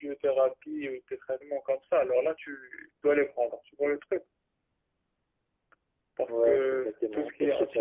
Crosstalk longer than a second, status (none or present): present